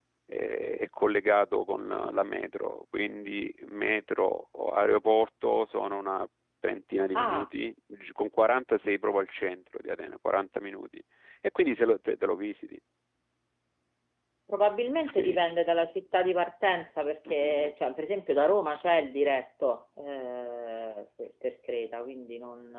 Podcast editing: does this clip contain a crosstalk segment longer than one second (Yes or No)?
No